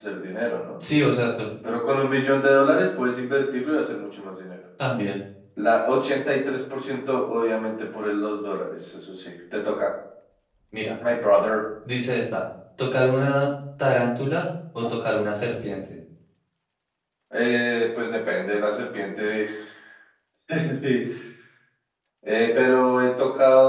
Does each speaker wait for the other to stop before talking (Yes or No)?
Yes